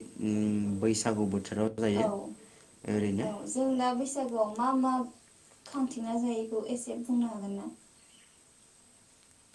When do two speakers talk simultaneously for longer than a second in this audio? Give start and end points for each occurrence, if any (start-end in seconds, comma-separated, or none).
none